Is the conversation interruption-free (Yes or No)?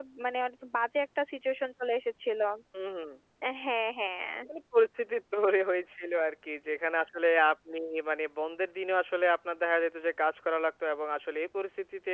Yes